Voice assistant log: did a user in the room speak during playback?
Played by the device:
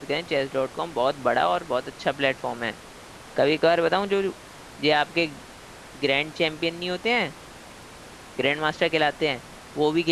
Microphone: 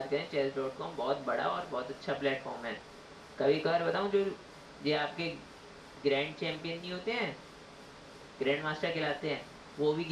No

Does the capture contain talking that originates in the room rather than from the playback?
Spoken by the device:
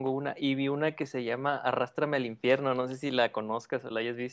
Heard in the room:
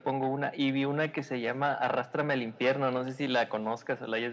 No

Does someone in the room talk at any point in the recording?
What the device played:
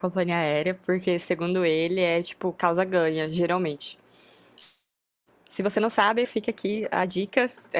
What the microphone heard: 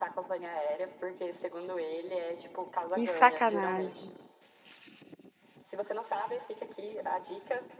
Yes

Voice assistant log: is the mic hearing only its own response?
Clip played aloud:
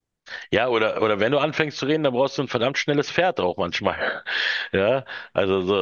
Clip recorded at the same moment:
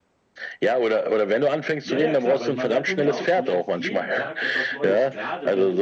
No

